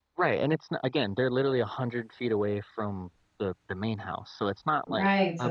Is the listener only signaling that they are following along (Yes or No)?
No